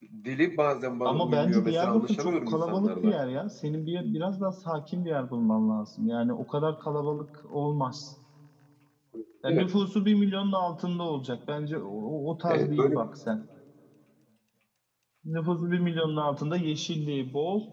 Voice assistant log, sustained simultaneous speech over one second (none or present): present